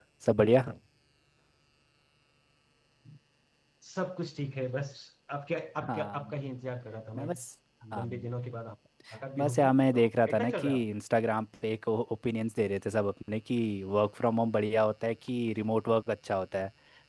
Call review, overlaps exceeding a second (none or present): present